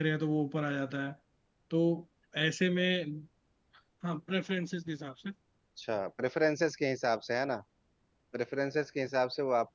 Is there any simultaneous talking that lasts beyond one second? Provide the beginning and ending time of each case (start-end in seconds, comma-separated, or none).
none